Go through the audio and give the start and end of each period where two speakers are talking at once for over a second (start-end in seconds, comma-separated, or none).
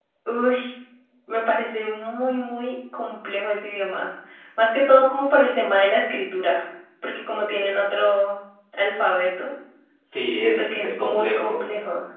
10.4-11.6